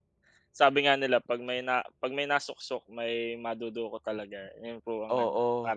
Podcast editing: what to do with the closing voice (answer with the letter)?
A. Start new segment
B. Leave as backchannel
A